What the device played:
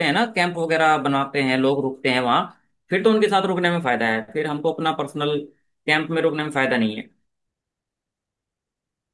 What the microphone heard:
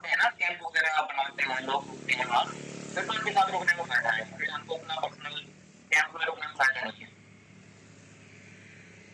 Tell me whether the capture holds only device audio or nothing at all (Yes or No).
Yes